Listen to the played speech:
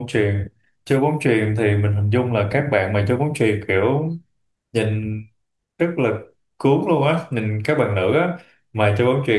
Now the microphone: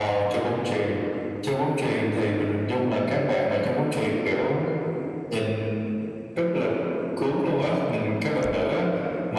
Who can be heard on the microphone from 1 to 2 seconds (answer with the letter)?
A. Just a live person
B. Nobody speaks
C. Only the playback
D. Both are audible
C